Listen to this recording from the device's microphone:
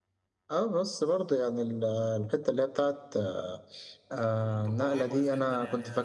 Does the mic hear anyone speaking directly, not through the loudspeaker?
Yes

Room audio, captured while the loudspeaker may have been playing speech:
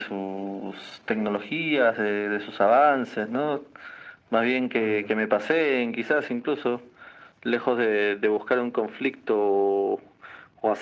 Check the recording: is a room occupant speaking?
Yes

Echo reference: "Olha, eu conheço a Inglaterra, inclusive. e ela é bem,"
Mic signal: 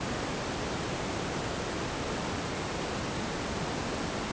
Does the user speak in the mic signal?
No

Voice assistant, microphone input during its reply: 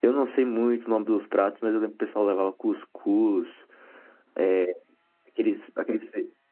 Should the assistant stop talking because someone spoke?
Yes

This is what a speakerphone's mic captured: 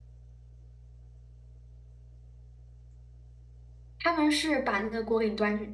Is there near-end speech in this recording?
Yes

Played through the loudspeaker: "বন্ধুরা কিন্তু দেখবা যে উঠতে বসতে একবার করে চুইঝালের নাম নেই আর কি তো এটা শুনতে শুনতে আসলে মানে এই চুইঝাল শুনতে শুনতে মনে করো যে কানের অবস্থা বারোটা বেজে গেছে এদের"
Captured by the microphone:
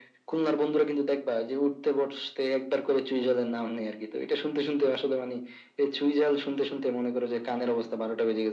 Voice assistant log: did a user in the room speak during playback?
No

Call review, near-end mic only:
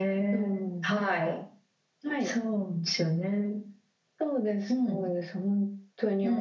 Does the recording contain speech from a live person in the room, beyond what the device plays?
No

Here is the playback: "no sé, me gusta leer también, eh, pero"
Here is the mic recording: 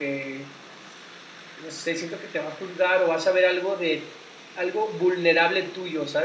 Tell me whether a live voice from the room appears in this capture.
Yes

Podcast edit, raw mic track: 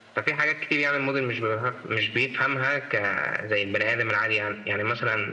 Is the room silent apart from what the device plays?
Yes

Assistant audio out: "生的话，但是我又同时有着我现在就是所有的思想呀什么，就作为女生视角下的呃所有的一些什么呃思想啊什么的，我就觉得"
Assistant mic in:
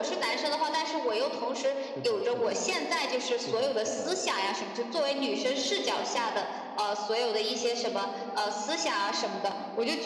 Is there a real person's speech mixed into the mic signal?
Yes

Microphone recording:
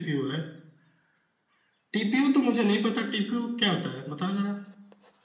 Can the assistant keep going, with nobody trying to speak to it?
Yes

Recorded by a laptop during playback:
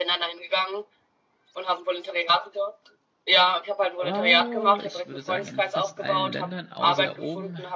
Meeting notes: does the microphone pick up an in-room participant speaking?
Yes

